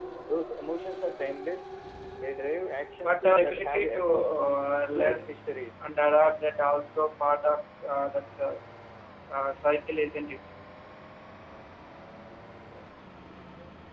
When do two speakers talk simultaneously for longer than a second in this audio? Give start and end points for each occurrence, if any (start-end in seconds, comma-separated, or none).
3.0-4.3